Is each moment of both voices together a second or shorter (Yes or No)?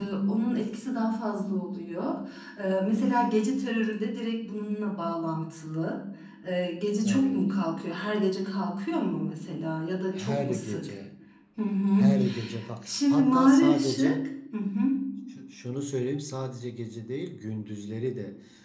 No